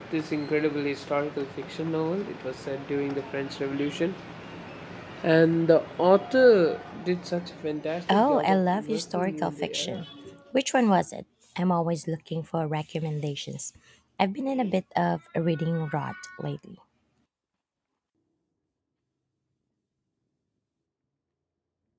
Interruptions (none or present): present